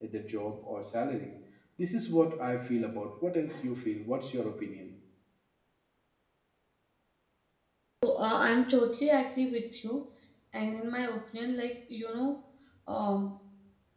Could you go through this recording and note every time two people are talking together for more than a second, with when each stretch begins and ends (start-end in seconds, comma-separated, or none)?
none